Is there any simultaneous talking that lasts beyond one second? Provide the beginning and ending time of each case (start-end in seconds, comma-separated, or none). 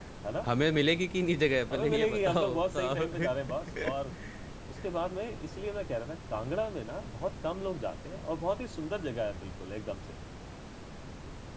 1.7-3.1